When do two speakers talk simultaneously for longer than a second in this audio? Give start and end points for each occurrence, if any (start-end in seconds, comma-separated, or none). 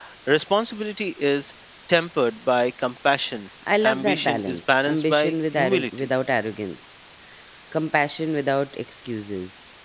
3.8-6.1